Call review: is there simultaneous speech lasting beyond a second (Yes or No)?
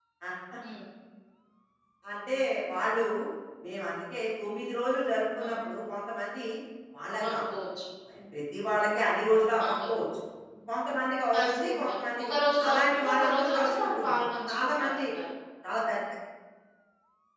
Yes